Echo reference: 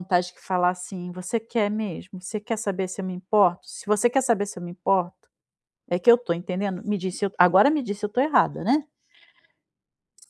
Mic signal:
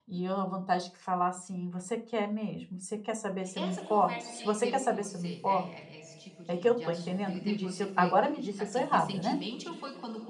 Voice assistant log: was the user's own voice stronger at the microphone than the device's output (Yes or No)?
No